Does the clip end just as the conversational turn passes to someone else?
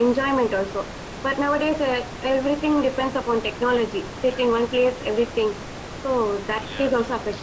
Yes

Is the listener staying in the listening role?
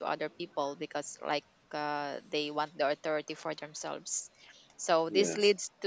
Yes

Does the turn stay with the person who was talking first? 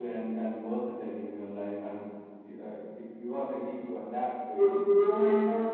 No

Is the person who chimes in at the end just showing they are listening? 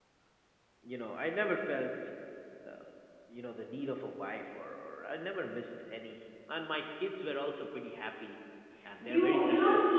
No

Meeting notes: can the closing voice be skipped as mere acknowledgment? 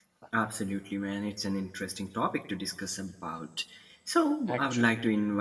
Yes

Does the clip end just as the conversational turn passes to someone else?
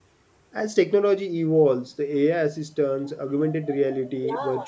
No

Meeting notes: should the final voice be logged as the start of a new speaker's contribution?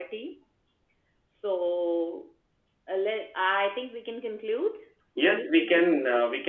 Yes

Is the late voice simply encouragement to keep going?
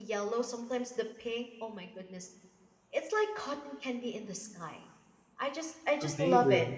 Yes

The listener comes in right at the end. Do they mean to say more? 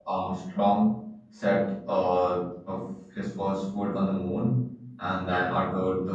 No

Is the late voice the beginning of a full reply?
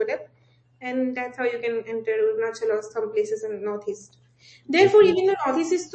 No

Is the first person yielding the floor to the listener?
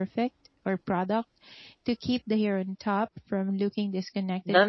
Yes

